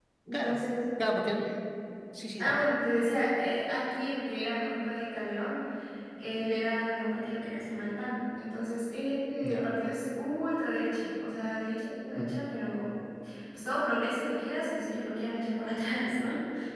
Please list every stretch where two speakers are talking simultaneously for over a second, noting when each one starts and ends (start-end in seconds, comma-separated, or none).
none